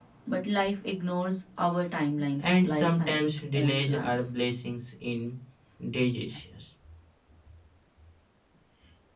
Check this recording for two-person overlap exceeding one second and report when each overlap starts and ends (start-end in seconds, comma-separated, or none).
2.4-4.4